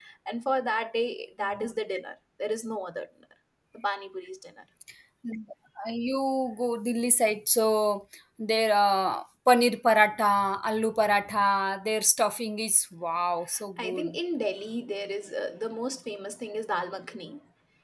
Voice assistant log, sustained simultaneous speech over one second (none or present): none